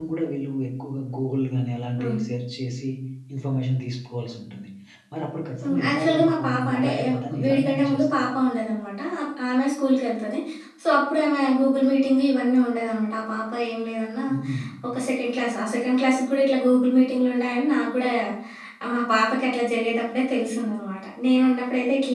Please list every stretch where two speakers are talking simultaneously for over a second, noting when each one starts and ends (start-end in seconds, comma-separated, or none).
5.6-8.2